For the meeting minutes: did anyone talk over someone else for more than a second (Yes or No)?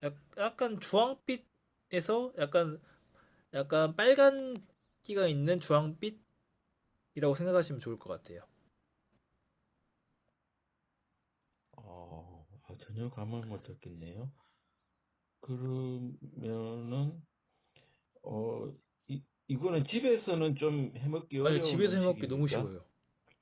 Yes